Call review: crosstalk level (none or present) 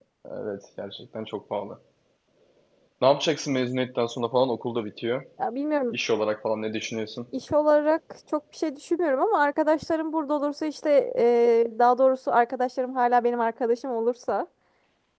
none